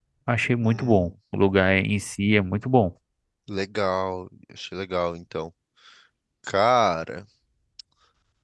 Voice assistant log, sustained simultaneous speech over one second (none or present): none